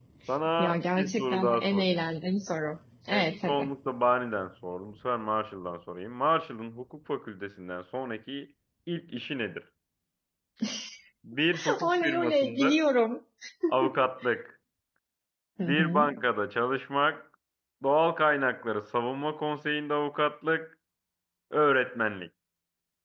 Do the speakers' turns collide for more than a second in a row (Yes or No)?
Yes